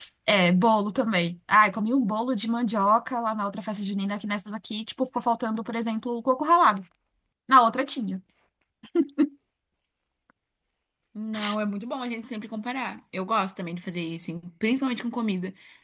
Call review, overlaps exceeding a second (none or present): none